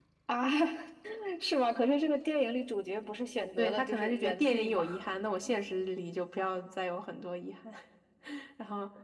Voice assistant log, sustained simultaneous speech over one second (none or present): present